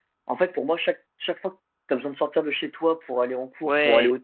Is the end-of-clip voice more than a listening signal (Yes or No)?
No